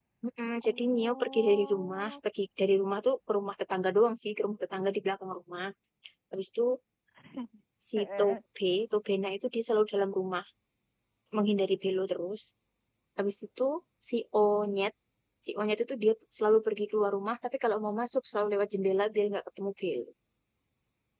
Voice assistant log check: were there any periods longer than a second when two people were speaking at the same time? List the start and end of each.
0.6-2.1

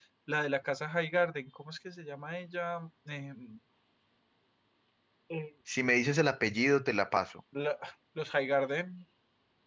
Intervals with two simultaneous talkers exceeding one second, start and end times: none

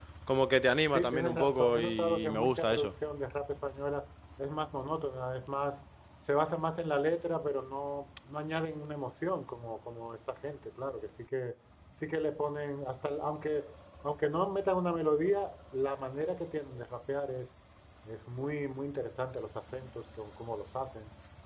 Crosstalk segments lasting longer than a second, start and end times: 0.9-2.9

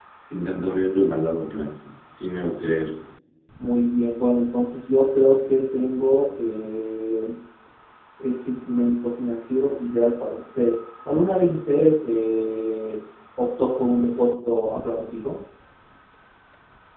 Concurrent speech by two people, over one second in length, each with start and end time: none

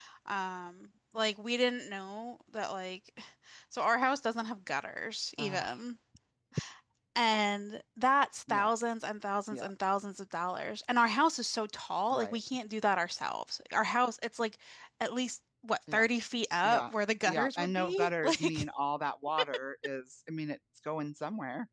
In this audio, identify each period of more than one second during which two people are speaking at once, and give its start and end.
17.3-18.6

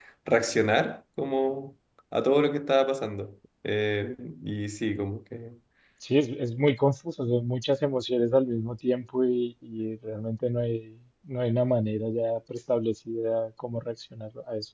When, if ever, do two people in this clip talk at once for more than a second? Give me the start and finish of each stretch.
none

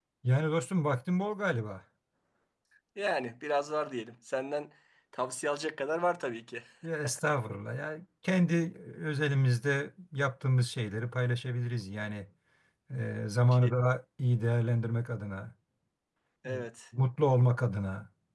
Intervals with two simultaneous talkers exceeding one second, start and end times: none

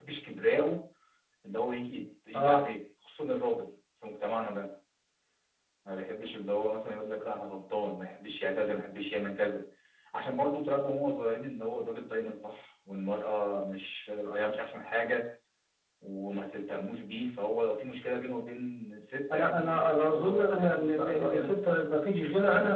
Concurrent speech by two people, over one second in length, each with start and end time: 19.3-21.8

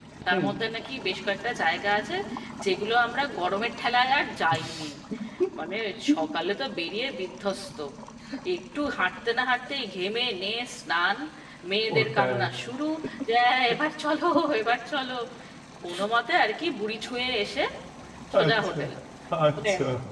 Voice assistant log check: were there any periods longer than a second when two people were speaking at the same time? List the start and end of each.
none

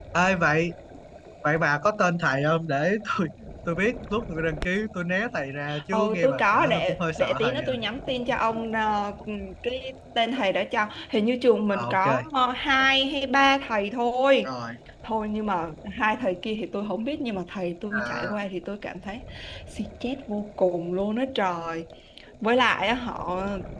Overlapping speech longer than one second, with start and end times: 5.9-7.8

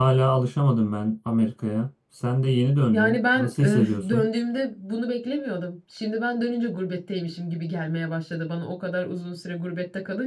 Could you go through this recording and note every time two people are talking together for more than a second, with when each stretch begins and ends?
2.9-4.3

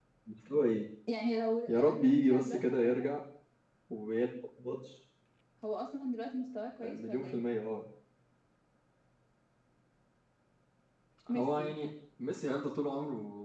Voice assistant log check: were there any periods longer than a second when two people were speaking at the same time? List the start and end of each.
1.7-3.0

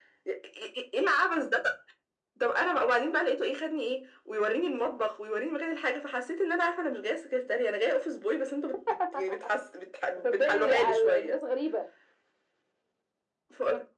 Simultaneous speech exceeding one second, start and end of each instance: 10.2-11.4

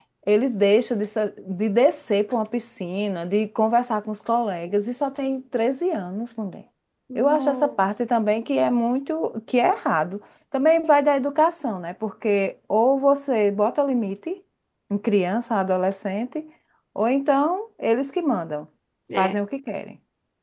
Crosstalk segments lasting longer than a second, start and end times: 7.2-8.4

